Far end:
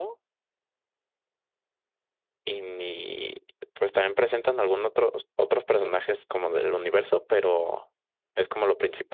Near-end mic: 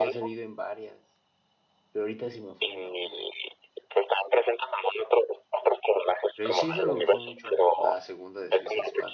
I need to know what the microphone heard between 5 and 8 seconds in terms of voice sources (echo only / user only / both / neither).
both